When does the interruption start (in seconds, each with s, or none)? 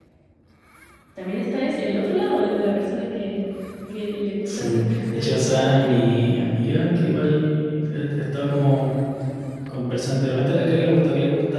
4.4 s